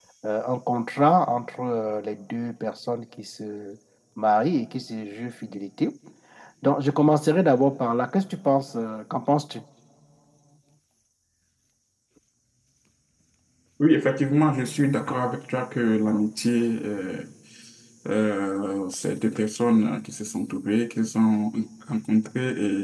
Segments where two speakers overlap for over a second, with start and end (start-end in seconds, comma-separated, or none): none